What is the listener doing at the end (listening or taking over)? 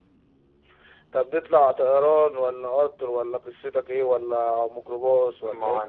taking over